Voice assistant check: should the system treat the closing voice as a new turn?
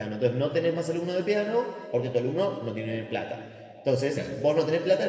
No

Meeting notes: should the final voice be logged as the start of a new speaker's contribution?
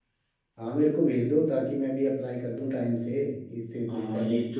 Yes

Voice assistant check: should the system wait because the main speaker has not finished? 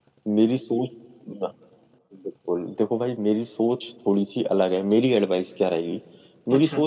Yes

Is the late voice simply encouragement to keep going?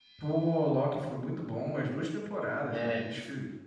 Yes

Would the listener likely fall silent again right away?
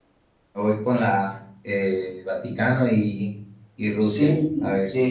No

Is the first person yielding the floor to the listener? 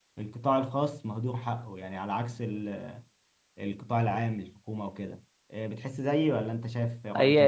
Yes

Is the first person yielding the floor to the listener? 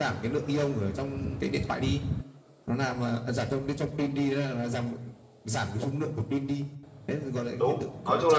Yes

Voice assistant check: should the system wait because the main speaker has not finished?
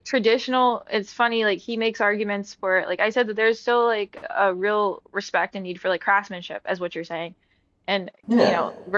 Yes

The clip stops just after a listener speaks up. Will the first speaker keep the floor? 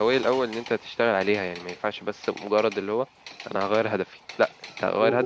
No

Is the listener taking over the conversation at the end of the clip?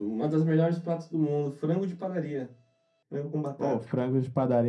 Yes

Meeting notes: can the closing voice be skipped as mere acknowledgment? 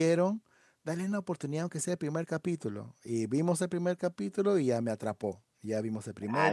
No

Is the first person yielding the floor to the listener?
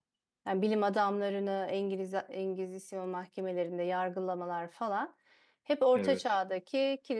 No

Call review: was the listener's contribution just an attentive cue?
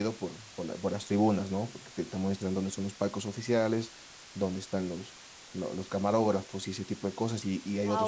Yes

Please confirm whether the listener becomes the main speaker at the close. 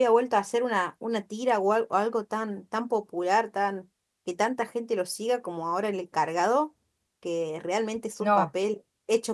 No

